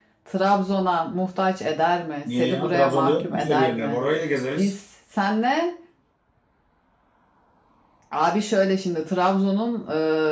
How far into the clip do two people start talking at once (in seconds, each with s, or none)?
2.3 s